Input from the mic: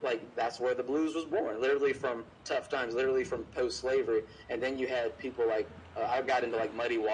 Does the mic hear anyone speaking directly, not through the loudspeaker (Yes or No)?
No